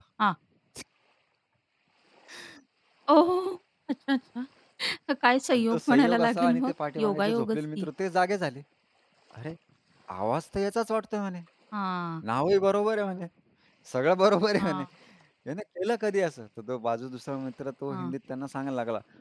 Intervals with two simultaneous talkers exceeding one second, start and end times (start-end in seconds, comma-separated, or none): 5.5-7.9